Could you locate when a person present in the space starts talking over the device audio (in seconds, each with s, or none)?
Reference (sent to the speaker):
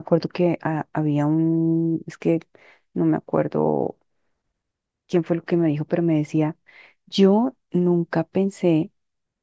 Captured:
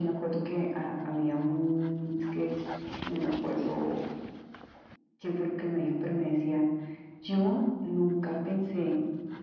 3.4 s